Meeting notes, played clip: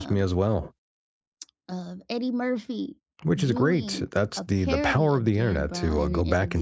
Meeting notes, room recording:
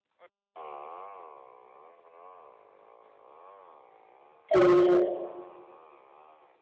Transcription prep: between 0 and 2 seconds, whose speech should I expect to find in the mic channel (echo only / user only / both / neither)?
neither